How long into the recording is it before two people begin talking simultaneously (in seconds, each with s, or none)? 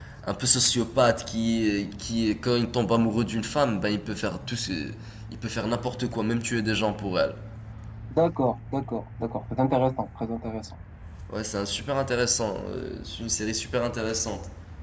none